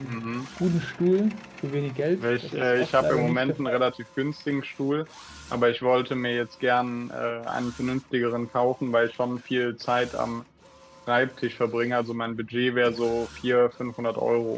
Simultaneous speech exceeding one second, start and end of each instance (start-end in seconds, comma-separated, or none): 2.2-3.7